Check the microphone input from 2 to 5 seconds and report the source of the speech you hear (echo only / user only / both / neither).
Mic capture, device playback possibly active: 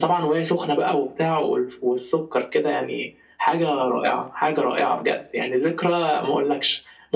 echo only